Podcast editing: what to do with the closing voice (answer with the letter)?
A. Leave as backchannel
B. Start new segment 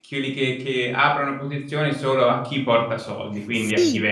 B